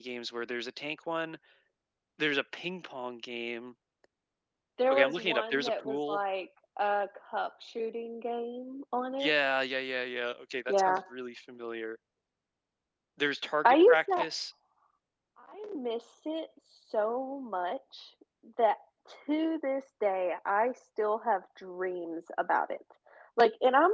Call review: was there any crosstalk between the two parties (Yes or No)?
Yes